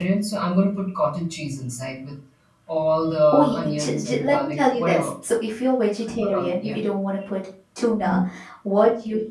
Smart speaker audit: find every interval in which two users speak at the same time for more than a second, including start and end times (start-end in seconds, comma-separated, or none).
3.3-5.1